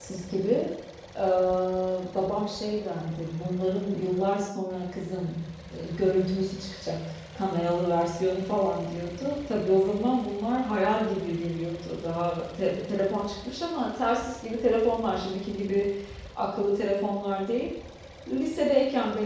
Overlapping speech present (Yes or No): No